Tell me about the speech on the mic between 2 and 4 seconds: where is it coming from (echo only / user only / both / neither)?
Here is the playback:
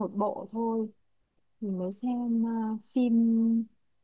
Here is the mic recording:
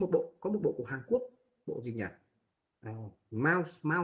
user only